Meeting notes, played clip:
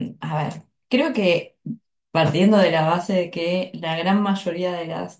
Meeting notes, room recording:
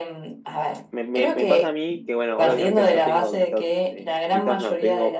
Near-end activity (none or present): present